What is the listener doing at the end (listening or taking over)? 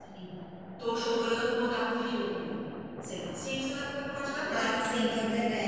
taking over